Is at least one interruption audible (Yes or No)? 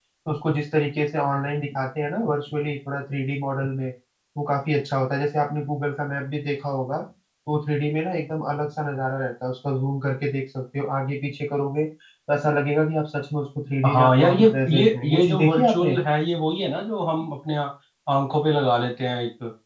Yes